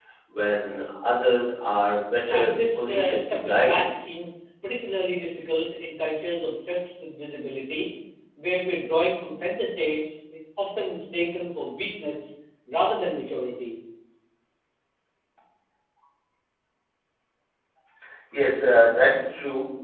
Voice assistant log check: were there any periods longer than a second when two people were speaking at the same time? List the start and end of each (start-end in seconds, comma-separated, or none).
2.3-3.8